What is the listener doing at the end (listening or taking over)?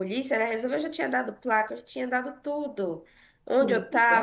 listening